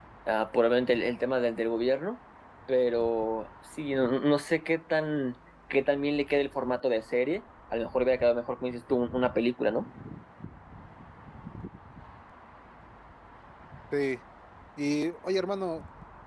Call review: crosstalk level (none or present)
none